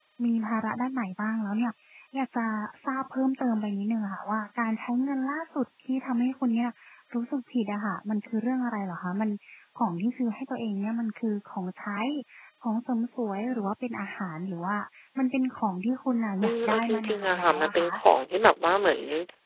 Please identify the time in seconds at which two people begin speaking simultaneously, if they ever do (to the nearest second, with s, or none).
16 s